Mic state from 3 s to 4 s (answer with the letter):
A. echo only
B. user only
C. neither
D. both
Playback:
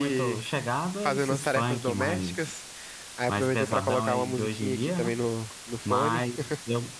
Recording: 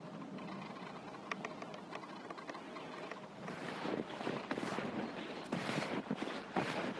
C